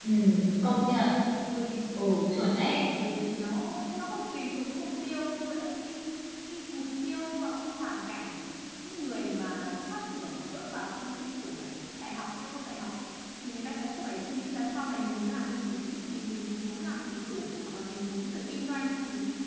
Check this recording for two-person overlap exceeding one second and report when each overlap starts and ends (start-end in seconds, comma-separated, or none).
none